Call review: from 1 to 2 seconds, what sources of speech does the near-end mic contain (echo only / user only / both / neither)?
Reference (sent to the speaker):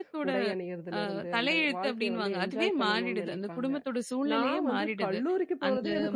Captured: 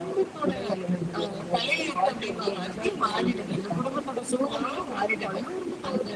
echo only